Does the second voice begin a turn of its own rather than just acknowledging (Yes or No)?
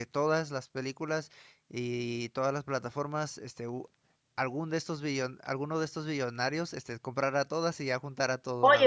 Yes